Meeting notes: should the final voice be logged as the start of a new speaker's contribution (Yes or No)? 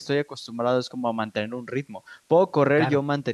No